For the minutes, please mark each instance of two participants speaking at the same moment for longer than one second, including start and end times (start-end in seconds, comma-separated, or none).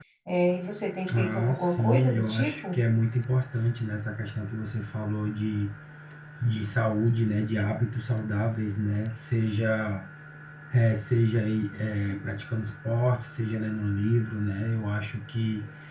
1.1-2.8